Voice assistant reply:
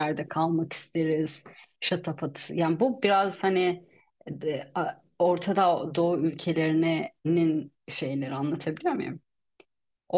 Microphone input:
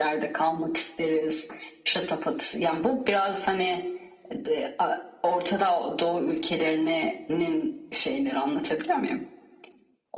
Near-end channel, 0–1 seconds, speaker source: echo only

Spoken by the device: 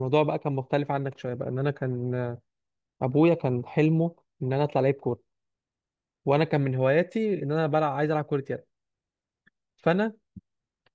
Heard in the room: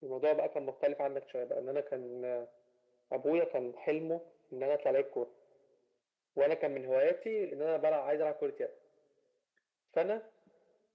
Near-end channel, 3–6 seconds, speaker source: echo only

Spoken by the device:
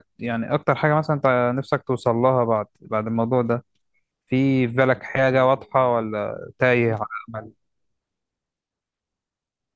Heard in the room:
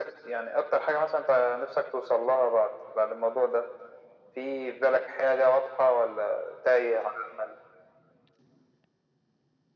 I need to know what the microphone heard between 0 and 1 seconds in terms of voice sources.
echo only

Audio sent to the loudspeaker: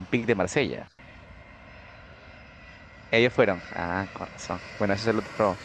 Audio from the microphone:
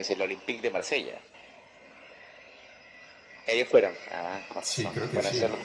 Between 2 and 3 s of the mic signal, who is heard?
neither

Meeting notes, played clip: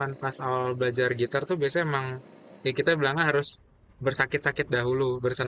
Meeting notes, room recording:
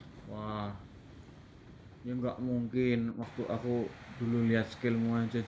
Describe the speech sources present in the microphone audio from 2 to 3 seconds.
user only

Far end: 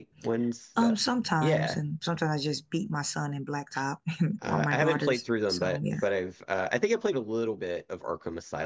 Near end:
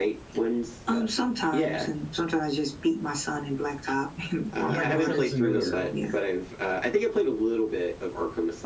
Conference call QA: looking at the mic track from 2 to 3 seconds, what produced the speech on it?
echo only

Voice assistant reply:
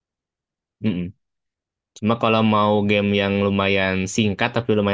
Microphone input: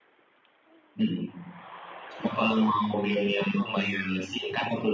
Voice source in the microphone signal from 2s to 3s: echo only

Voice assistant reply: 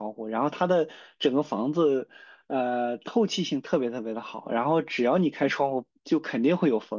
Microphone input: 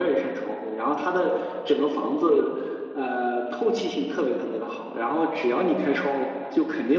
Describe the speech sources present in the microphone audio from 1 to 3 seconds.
echo only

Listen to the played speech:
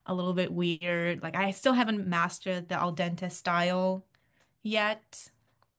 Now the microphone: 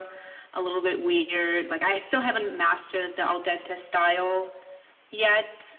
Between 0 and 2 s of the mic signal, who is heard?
echo only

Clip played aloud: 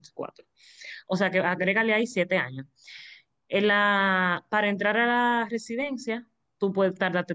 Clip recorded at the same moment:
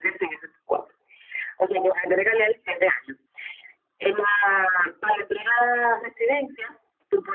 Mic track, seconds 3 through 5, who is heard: echo only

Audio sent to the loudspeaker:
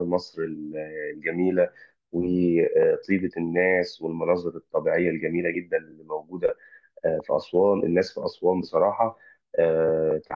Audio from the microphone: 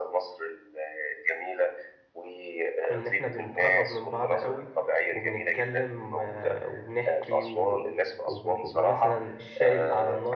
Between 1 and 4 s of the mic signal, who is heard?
both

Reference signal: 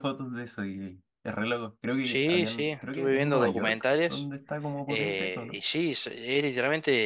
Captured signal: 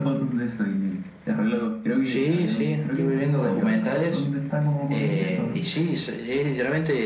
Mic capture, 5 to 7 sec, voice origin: echo only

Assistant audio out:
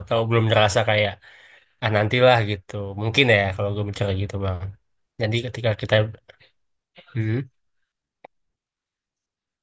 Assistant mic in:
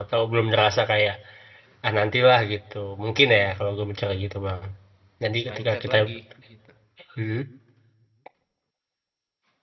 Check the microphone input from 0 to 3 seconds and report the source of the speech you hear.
echo only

